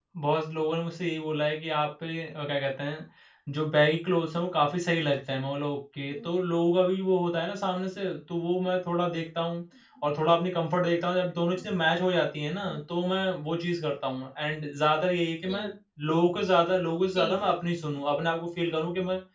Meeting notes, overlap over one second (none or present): none